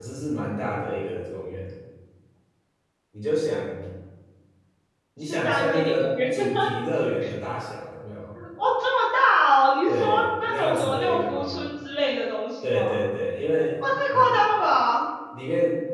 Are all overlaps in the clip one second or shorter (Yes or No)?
No